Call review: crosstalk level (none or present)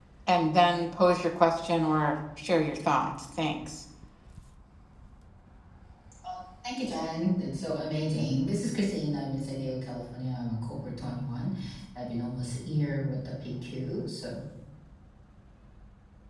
none